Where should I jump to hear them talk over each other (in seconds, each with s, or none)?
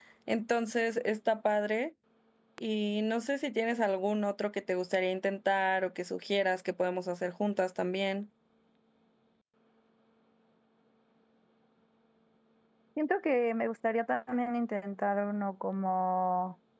none